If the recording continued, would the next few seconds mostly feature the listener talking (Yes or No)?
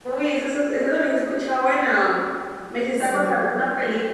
No